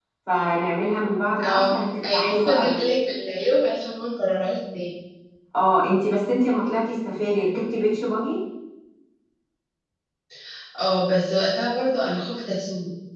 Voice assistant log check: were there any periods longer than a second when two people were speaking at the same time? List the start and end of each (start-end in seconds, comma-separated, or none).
1.4-2.8